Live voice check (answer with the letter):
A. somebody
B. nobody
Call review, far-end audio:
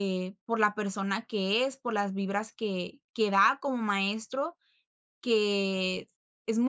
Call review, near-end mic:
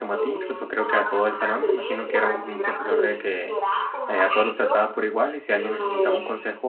A